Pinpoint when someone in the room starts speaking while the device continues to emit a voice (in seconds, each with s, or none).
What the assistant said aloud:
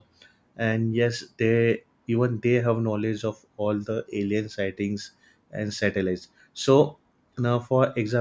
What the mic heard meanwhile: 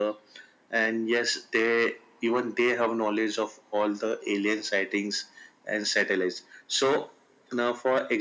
none